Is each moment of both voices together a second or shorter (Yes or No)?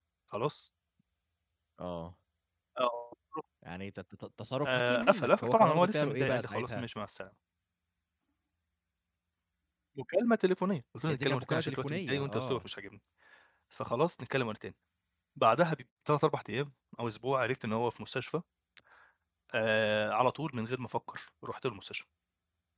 No